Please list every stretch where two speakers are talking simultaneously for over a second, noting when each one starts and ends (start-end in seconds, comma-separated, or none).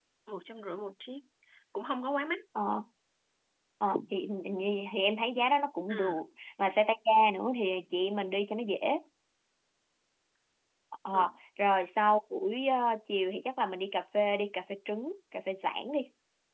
none